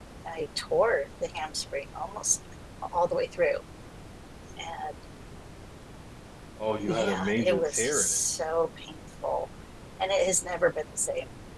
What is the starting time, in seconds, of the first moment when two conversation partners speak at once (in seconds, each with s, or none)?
6.9 s